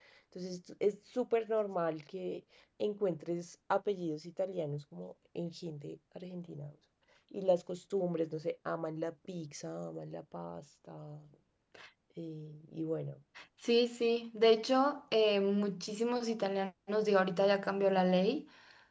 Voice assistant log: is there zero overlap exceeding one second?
Yes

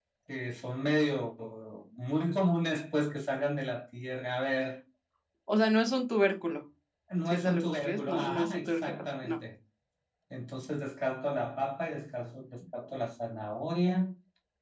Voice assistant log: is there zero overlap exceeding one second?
No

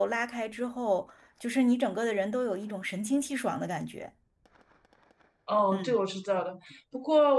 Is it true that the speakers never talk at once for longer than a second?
Yes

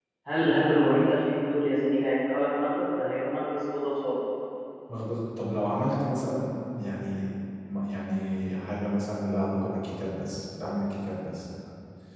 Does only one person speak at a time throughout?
Yes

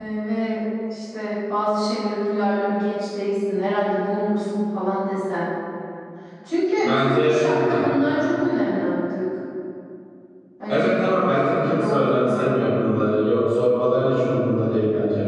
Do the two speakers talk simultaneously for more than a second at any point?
Yes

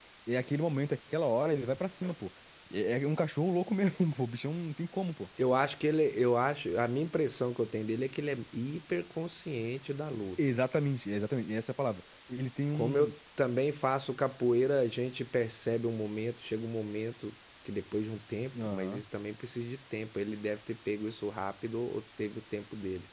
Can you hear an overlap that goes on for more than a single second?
No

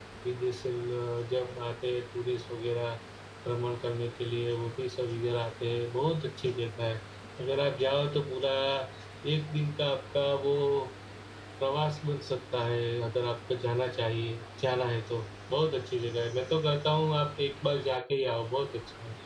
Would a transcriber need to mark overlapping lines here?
No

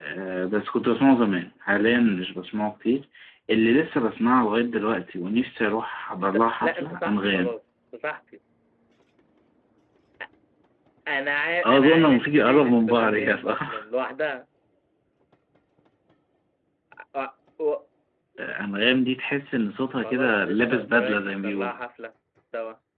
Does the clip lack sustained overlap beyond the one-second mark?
No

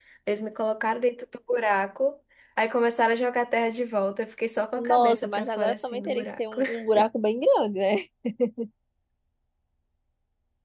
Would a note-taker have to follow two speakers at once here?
Yes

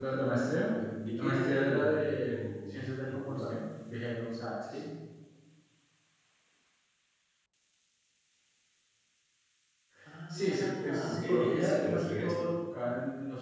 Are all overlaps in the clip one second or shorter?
No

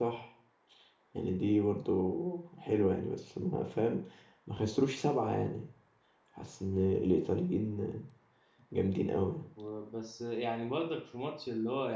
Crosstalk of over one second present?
No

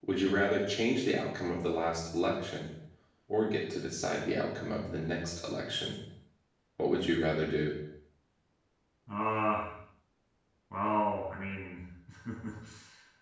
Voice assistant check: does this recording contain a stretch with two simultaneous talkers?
No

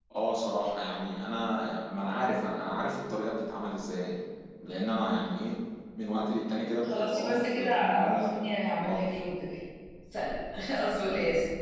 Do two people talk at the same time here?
Yes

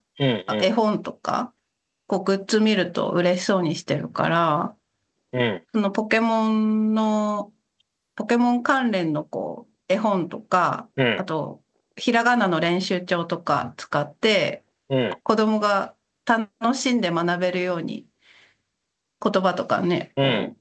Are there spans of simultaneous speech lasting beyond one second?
No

